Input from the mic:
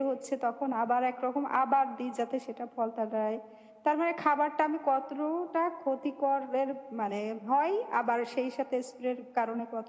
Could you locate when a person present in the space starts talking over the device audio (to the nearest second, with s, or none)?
none